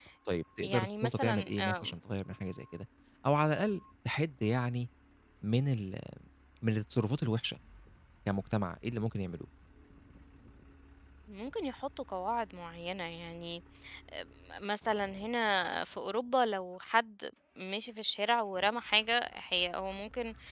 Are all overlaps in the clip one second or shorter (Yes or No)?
No